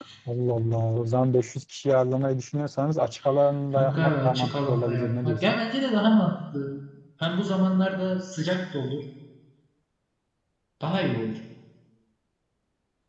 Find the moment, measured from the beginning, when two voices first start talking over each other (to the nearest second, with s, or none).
4 s